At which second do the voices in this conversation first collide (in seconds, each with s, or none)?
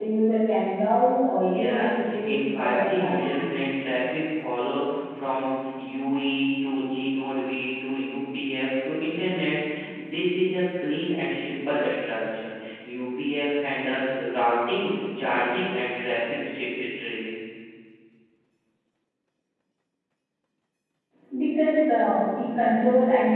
1.4 s